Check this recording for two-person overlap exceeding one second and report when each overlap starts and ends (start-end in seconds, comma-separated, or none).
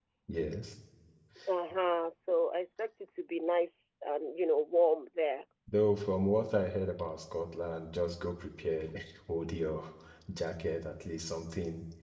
none